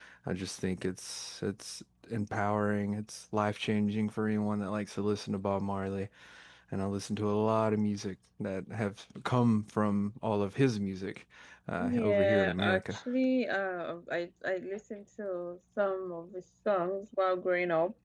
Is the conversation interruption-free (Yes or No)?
No